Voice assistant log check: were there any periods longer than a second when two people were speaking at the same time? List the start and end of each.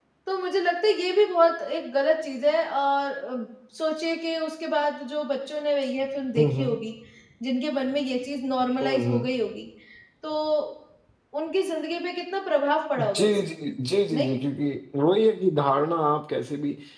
none

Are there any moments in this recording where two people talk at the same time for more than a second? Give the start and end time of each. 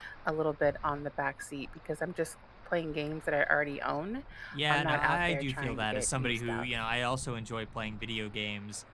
4.7-6.7

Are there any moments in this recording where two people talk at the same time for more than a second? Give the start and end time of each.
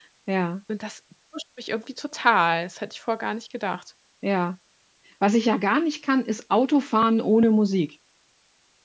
none

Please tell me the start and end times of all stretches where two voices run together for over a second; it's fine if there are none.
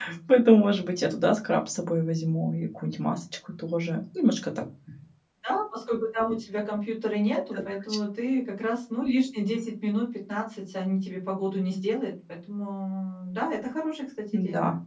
none

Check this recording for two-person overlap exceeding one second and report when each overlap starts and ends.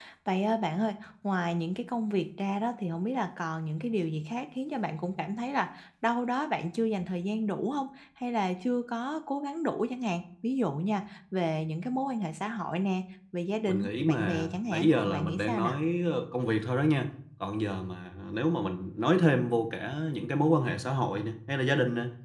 13.6-15.7

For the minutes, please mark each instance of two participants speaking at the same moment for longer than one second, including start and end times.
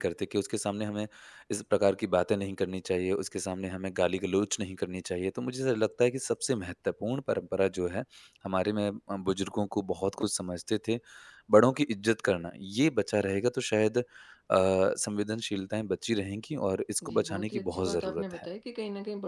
17.0-18.4

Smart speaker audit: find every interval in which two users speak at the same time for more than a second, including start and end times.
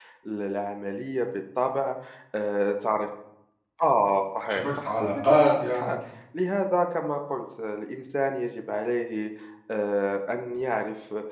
4.5-6.0

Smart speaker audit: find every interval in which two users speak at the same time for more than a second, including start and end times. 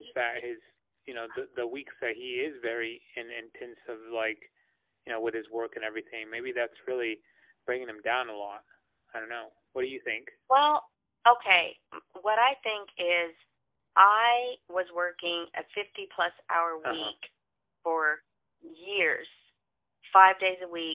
none

